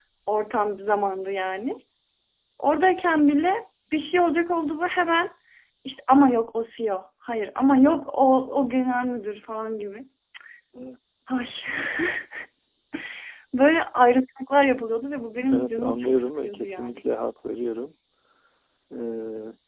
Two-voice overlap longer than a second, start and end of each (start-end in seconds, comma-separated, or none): 15.5-17.0